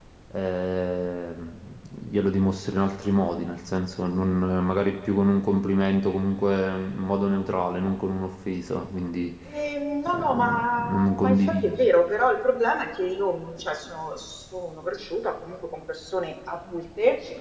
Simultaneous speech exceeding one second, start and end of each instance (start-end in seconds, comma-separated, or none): 10.1-11.8